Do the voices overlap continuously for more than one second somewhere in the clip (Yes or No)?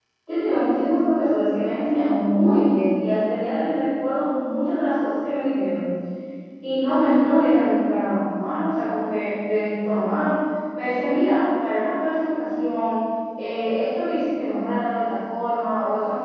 No